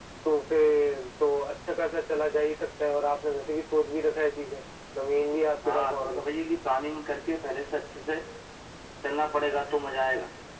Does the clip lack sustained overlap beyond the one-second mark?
Yes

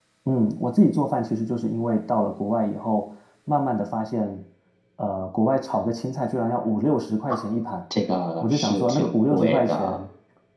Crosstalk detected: Yes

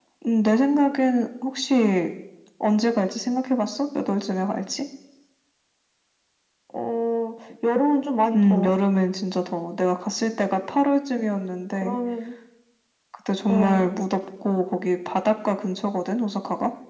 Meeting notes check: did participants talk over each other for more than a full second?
No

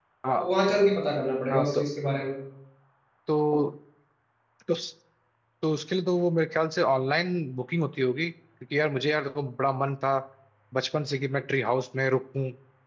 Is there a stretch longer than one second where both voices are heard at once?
No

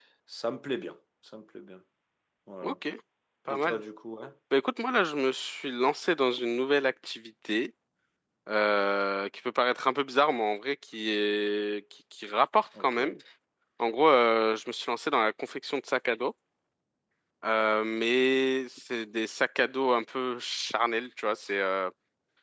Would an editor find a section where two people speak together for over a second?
No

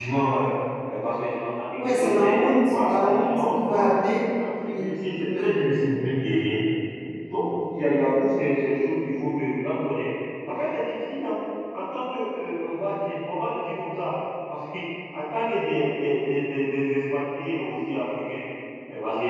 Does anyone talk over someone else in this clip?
Yes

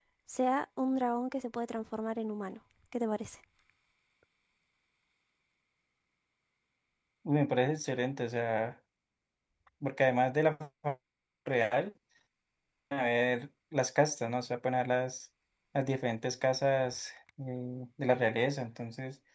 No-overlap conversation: Yes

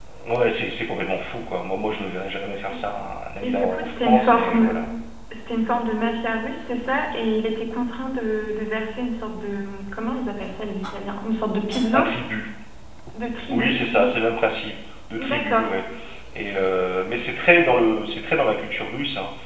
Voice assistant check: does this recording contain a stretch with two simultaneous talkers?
Yes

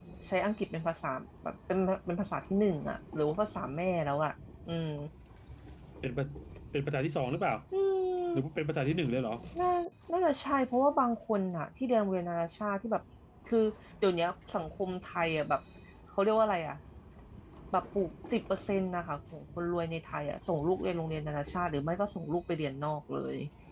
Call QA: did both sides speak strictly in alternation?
Yes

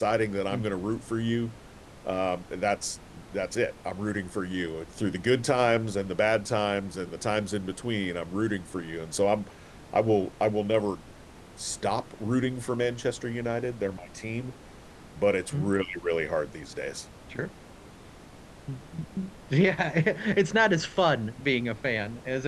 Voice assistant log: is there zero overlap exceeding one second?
Yes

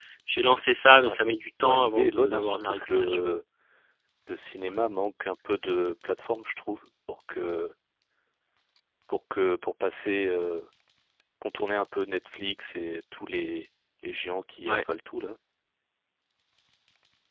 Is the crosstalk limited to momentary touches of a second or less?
No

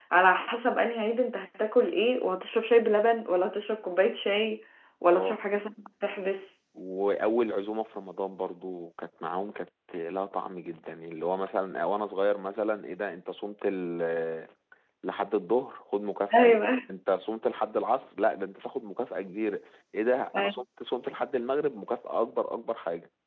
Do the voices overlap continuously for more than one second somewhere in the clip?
No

